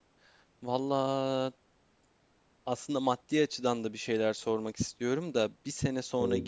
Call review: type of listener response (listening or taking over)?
listening